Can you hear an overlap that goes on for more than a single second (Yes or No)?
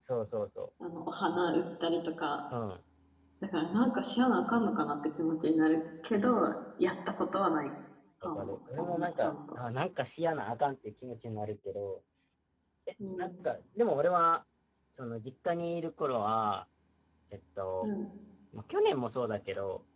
Yes